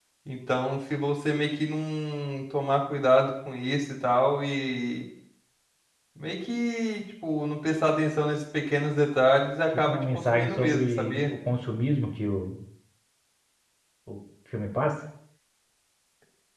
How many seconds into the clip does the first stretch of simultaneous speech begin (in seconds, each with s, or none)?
9.7 s